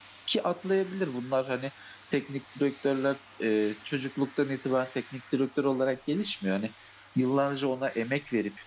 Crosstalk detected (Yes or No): No